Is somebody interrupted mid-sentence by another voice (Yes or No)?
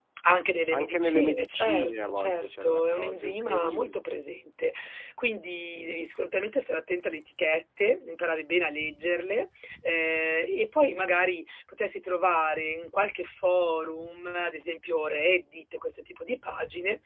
Yes